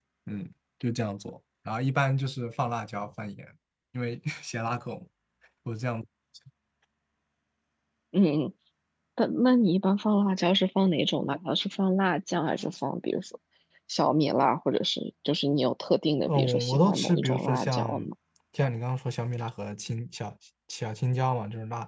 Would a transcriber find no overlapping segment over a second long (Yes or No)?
No